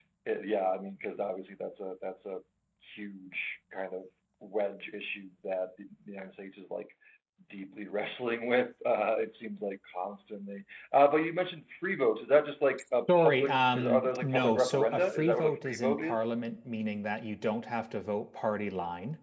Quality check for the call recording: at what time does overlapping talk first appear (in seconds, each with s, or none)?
13.1 s